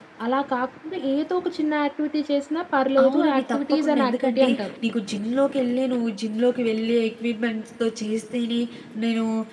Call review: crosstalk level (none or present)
present